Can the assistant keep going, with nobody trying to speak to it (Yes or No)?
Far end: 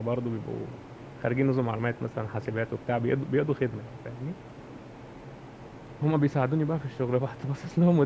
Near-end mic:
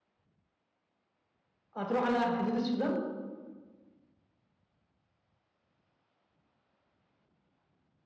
No